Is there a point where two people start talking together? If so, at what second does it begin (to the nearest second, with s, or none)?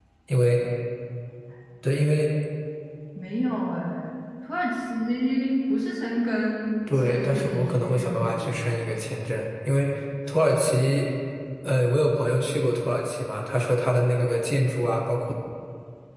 7 s